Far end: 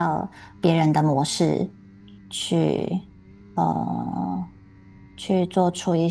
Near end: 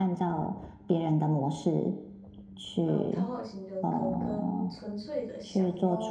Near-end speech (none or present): present